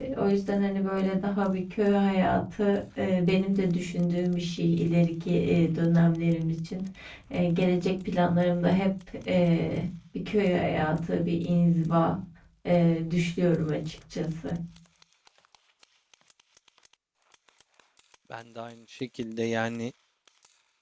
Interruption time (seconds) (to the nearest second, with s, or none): none